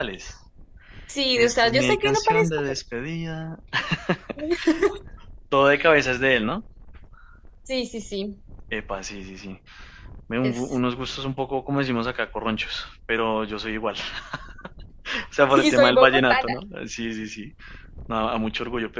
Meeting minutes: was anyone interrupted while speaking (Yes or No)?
Yes